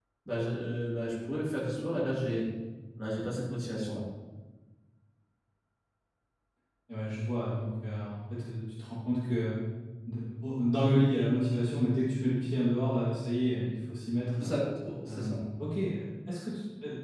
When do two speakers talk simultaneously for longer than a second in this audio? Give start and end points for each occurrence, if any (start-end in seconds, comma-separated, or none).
none